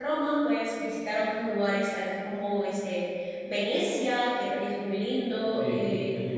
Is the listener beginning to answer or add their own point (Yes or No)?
Yes